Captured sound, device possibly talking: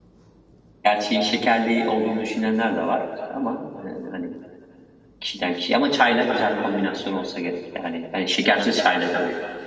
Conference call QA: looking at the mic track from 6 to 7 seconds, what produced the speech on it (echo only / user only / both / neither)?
user only